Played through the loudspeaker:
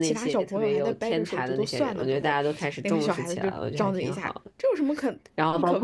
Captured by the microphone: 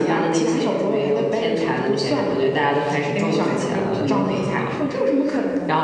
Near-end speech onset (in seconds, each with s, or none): 3.4 s